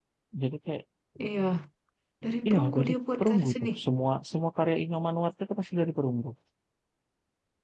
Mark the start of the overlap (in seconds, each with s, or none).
2.5 s